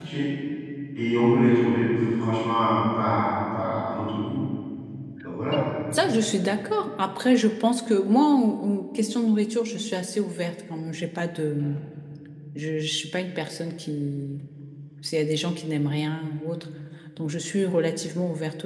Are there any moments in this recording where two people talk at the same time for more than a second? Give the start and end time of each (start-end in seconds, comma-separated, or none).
none